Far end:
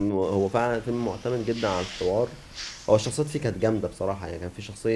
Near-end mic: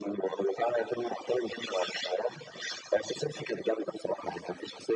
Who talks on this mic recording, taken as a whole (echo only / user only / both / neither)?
echo only